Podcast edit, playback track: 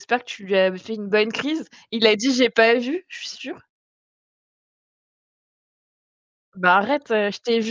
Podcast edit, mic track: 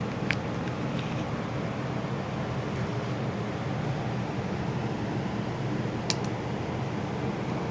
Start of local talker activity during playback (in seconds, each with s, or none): none